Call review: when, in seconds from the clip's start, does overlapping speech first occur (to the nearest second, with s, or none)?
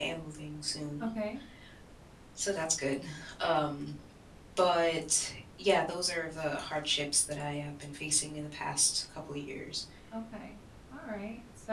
none